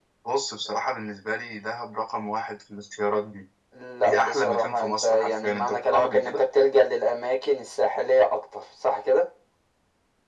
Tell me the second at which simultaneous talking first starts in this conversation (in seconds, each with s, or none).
4.0 s